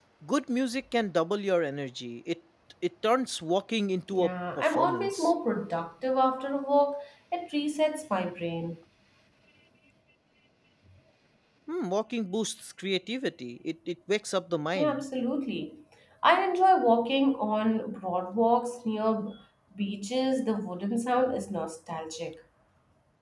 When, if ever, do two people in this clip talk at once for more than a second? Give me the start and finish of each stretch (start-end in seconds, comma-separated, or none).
4.1-5.3